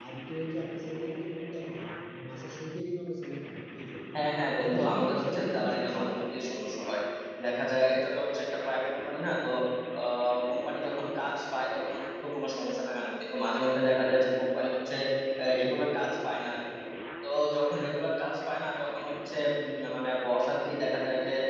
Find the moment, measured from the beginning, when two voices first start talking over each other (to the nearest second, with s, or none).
5 s